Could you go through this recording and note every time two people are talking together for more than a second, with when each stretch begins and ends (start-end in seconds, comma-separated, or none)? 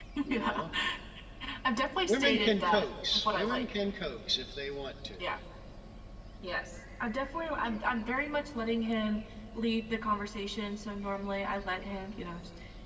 2.1-3.7